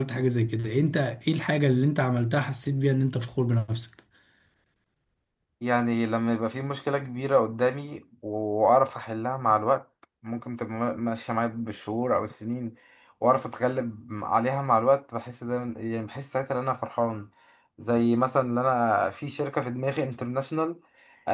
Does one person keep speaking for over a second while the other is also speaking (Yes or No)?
No